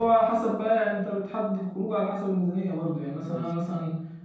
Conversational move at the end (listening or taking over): listening